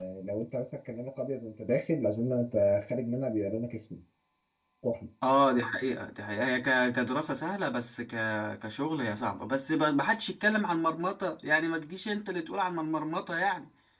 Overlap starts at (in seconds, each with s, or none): none